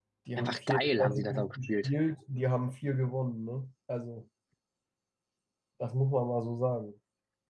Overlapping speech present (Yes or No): Yes